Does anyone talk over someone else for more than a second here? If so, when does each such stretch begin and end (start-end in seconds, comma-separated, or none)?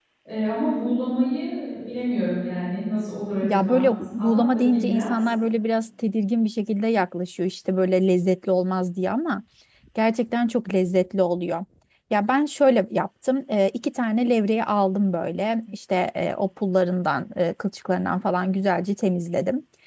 3.4-5.3